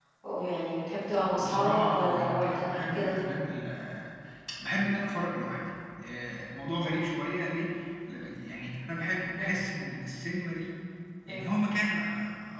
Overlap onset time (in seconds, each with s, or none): 1.3 s